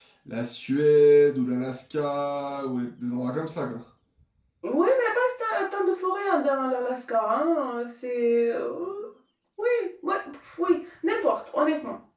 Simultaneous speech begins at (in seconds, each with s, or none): none